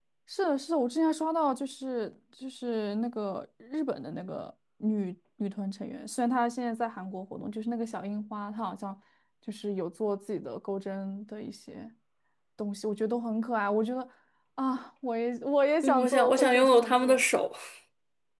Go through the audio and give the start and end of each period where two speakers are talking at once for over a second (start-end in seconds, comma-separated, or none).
15.8-17.2